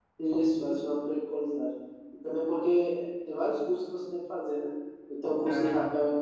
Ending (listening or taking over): listening